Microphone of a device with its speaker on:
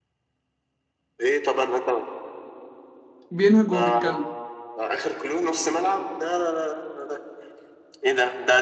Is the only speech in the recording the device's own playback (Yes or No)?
No